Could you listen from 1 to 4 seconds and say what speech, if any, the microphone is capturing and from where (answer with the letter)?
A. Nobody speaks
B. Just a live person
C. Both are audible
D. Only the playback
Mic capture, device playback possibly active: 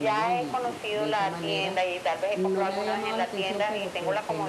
C